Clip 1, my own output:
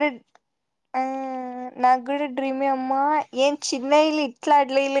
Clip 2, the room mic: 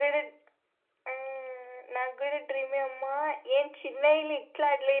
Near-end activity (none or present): none